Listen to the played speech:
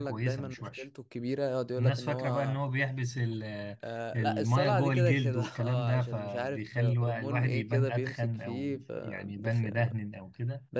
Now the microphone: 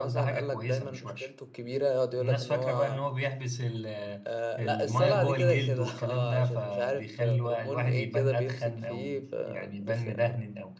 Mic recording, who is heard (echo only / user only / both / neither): echo only